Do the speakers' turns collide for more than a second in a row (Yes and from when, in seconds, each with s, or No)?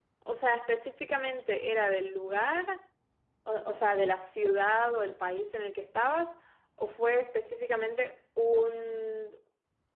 No